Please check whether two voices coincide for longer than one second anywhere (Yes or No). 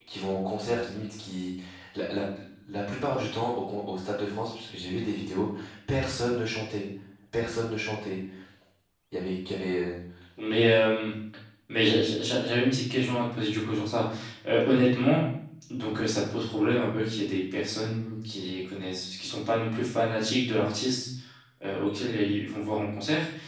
No